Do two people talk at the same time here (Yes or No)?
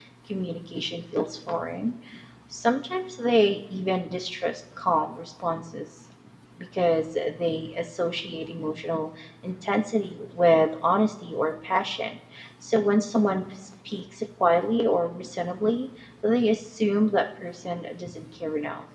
No